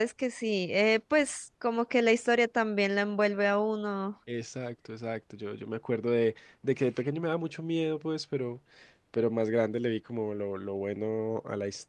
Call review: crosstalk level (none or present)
none